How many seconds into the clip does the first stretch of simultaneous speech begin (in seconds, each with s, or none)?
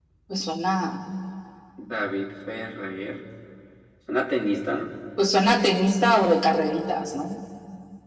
none